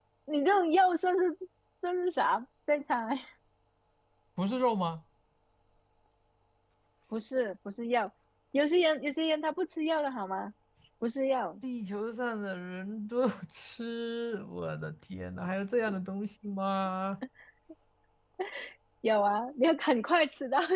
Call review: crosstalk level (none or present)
none